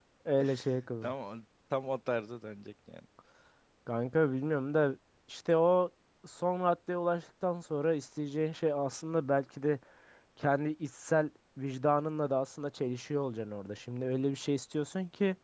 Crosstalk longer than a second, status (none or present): none